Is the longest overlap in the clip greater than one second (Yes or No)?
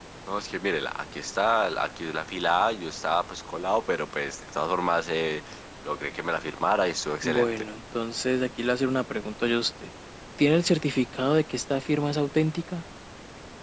No